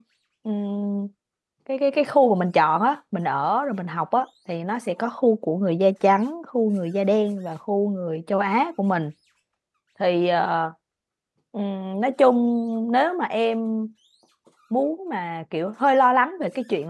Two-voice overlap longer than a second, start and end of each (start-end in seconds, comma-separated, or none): none